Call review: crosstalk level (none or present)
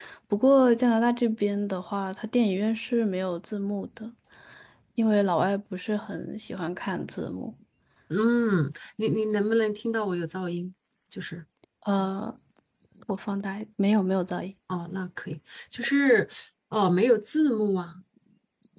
none